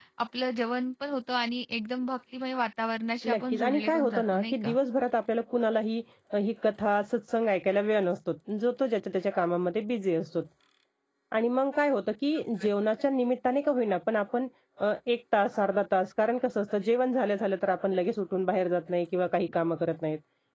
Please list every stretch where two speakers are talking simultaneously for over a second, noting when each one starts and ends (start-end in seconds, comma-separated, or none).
3.2-4.7